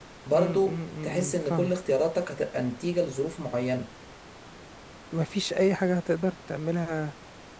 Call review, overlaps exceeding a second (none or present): present